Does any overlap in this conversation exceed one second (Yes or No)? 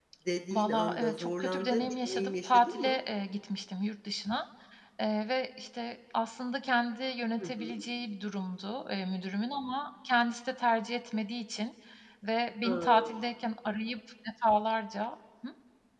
Yes